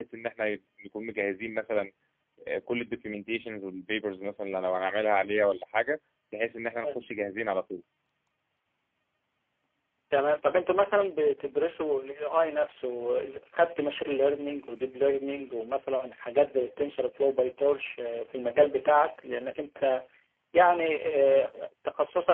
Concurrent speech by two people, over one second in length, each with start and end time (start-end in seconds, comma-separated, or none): none